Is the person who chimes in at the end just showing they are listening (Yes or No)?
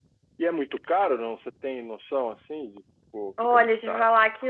No